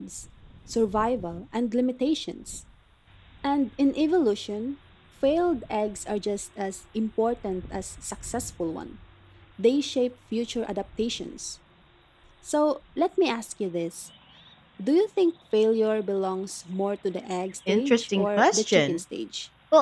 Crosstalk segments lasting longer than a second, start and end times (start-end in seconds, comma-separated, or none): 17.7-19.0